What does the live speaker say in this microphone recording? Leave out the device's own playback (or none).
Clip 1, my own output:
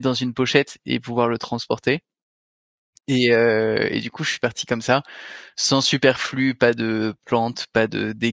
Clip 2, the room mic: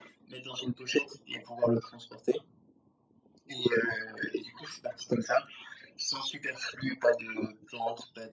none